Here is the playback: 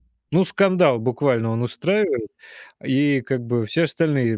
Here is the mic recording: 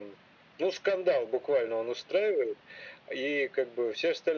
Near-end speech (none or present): none